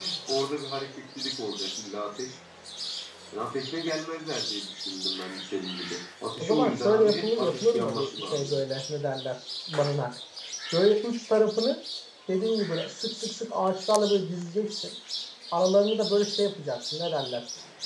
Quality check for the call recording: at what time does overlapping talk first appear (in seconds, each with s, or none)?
6.4 s